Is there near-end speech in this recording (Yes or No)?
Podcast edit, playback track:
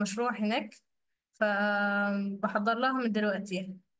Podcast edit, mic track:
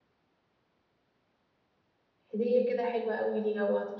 Yes